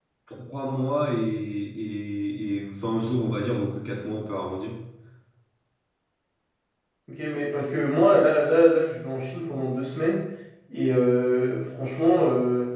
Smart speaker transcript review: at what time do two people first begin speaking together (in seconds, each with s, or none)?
none